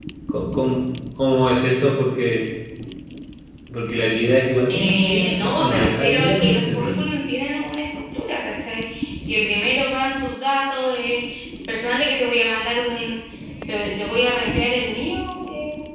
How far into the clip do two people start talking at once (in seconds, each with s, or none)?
4.7 s